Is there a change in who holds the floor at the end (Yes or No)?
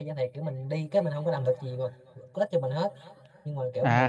Yes